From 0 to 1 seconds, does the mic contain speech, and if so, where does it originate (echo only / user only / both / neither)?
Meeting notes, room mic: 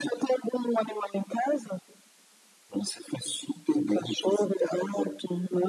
echo only